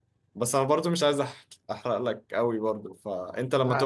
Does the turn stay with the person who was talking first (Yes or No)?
Yes